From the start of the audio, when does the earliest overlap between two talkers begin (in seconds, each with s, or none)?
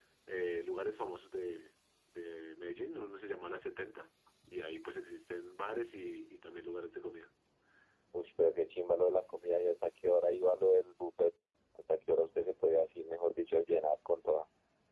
none